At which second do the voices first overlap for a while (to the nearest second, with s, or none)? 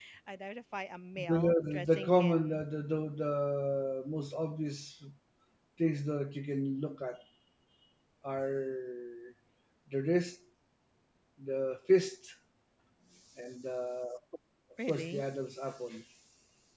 1 s